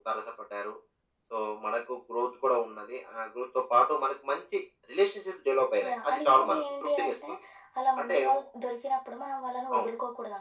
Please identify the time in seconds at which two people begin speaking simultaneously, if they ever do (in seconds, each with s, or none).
5.9 s